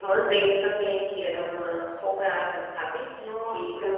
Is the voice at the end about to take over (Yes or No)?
Yes